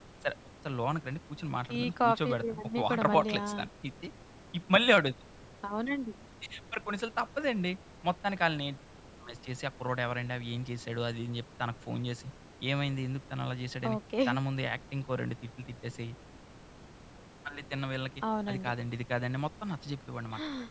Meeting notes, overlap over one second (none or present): present